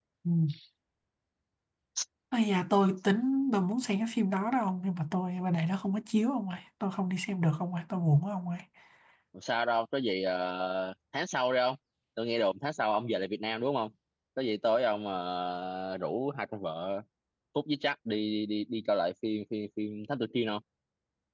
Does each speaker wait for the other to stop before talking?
Yes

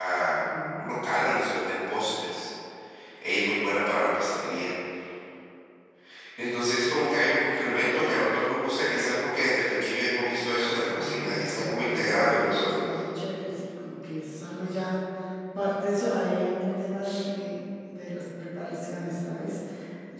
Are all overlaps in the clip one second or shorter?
No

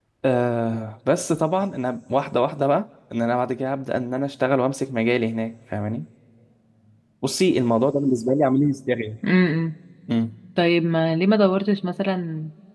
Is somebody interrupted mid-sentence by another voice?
No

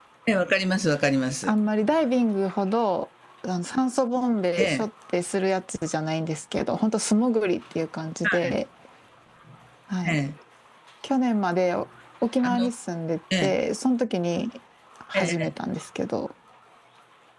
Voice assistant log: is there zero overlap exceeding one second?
Yes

